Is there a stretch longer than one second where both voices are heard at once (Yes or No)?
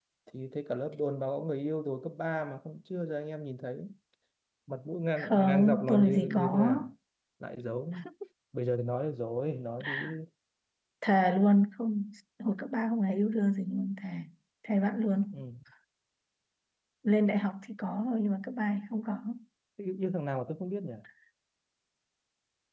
Yes